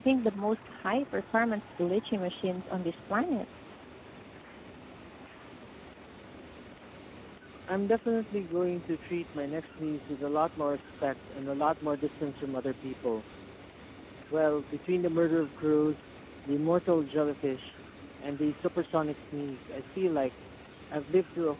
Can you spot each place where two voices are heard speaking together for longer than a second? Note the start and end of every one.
none

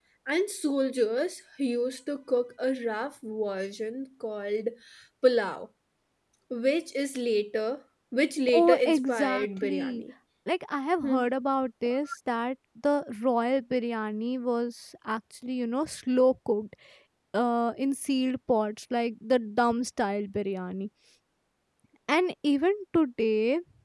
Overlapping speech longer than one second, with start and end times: 8.5-10.0

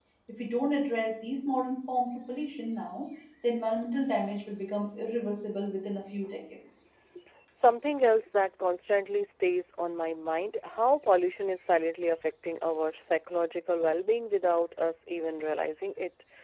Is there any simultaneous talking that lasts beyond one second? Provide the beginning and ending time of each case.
none

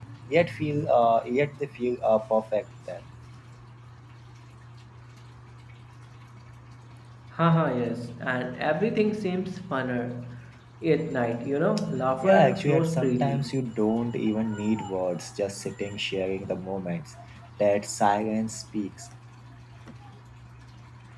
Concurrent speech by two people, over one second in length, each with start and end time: 12.2-13.5

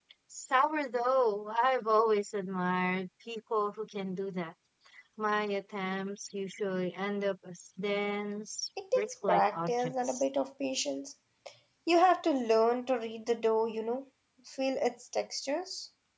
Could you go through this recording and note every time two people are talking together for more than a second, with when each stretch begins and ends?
8.9-10.3

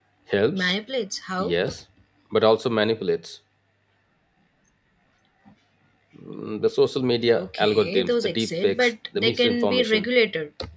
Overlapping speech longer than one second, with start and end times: 7.3-10.0

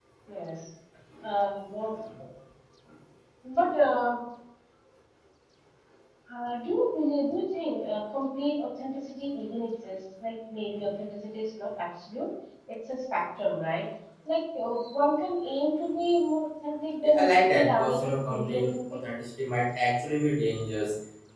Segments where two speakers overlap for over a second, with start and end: 17.0-19.0

